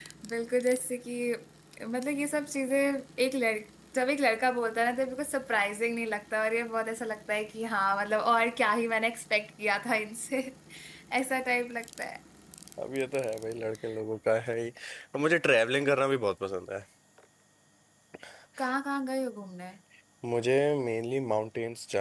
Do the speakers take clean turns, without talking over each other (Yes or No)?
Yes